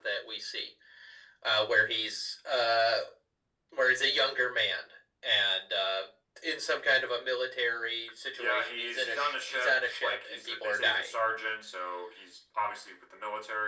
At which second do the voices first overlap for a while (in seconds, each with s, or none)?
8.3 s